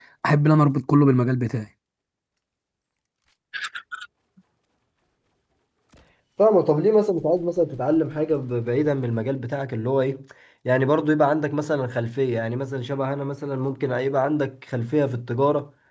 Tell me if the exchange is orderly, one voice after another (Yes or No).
Yes